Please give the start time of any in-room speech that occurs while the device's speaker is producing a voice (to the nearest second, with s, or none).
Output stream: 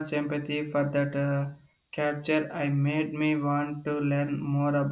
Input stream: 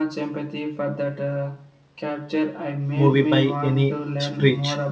3 s